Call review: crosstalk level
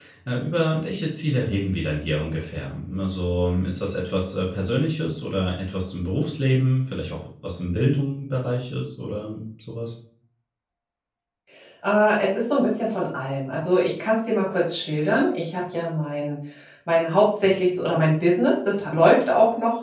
none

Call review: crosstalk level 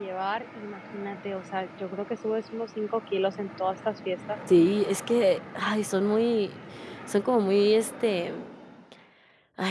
none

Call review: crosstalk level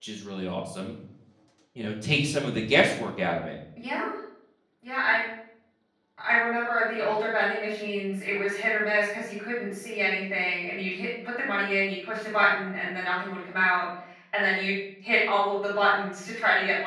none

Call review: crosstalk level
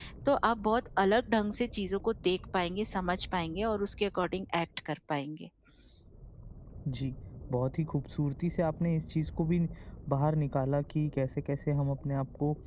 none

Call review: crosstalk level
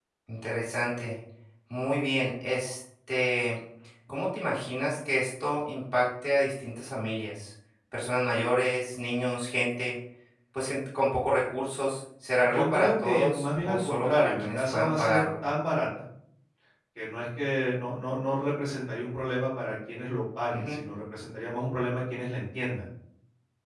present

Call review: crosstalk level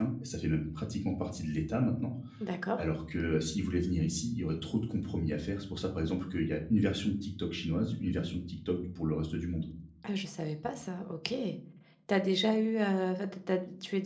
none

